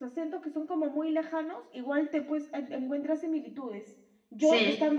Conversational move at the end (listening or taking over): listening